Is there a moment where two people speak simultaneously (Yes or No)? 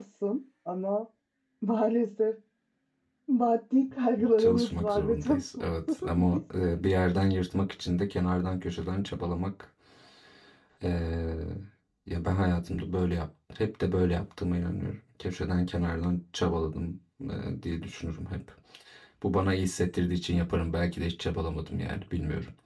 Yes